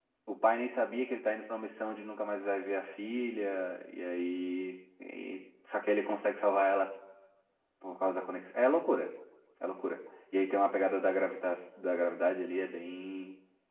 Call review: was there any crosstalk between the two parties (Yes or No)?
No